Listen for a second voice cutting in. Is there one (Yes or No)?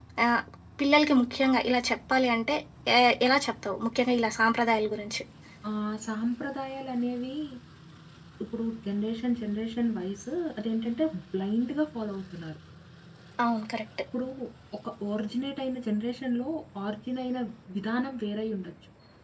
No